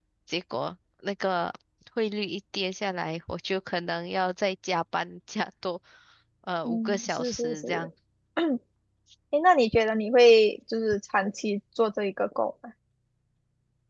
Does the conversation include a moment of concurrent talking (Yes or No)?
Yes